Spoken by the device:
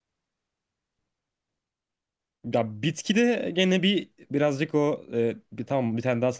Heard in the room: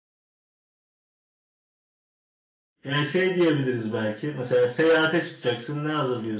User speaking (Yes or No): Yes